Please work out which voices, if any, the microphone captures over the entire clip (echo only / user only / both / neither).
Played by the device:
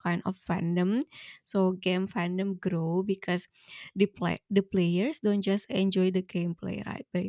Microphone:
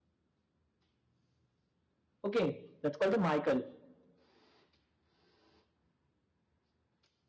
user only